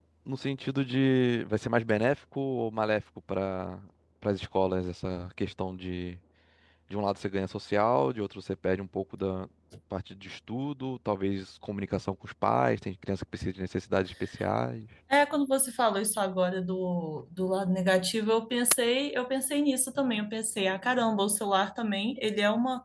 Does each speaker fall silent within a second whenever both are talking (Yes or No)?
Yes